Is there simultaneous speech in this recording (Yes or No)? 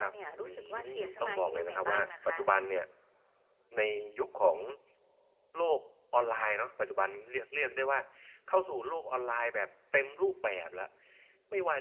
Yes